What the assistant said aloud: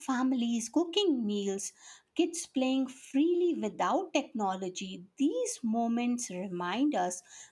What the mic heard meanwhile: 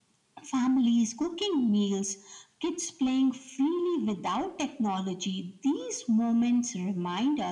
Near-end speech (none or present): none